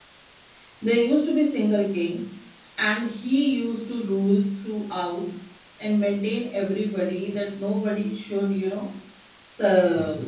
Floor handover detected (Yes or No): No